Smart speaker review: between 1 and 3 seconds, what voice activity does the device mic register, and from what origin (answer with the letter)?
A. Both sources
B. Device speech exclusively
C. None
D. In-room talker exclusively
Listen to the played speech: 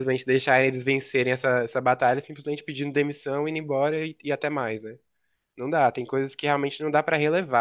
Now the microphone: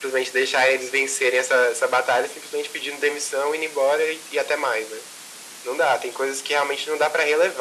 B